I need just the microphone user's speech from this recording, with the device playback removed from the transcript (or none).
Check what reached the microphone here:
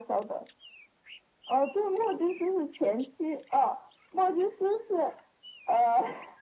none